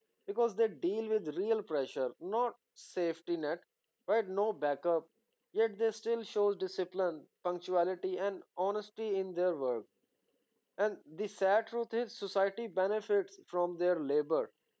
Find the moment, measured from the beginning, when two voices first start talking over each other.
none

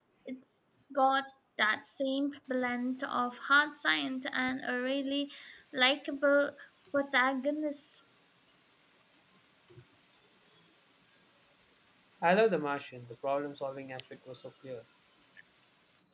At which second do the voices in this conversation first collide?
none

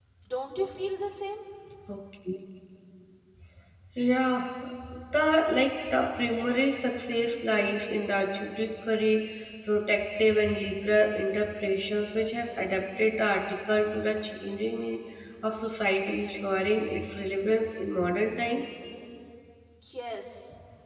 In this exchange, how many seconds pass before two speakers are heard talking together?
none

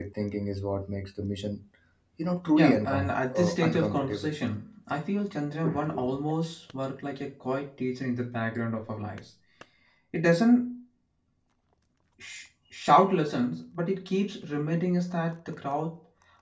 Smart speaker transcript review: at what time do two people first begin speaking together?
3 s

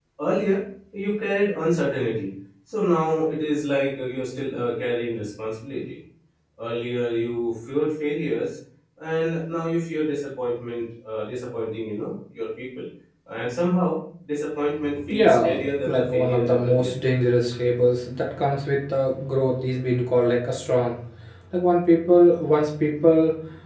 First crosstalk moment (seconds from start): 15 s

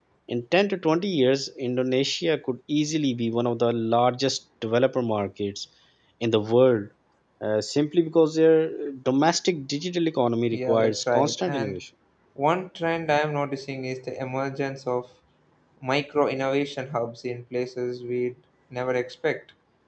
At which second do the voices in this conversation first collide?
11 s

